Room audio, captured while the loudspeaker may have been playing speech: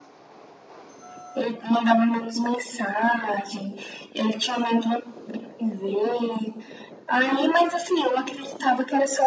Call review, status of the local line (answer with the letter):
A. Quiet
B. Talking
A